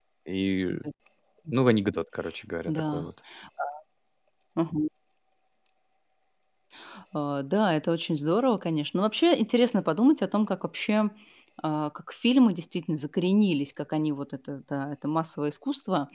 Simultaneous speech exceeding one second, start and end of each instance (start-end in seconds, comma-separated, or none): none